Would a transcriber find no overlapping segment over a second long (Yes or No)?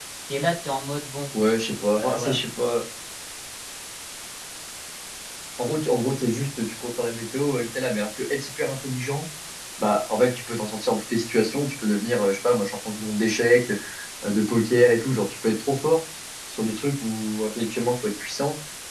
Yes